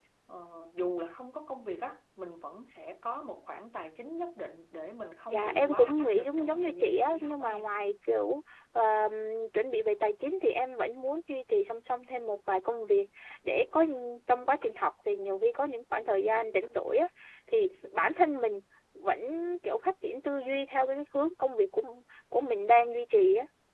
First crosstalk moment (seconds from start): 5 s

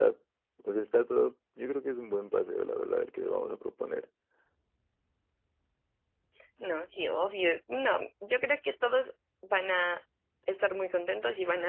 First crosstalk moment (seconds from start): none

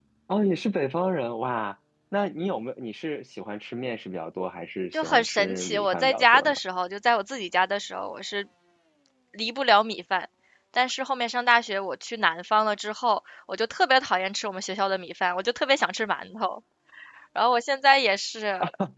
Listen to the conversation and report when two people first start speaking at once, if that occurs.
5 s

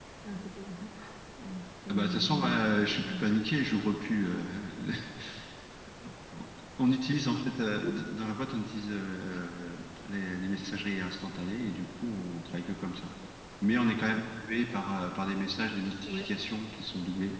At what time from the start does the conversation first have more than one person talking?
2 s

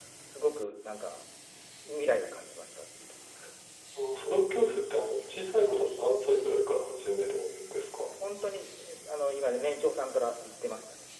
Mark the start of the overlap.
none

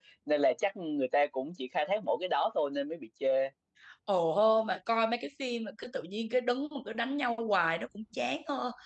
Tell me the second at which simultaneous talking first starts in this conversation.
none

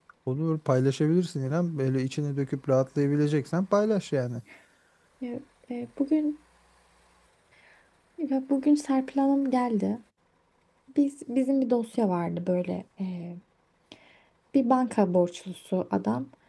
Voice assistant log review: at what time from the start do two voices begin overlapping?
none

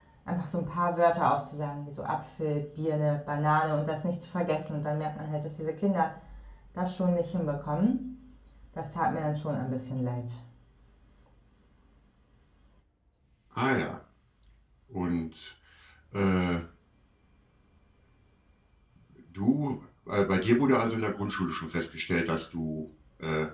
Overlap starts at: none

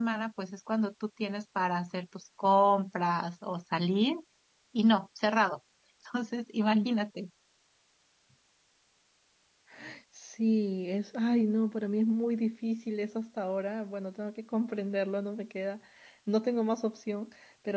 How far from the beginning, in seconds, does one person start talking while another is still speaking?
none

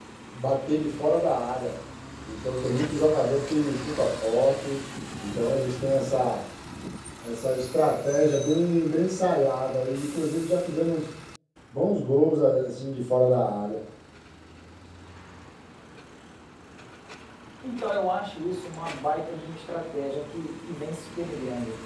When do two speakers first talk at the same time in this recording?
none

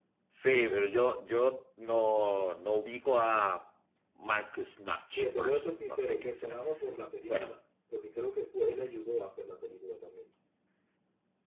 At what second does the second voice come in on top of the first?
5 s

